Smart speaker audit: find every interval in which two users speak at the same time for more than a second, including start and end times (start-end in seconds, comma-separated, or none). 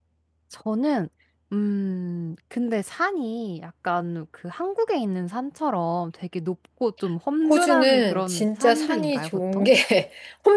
7.5-9.7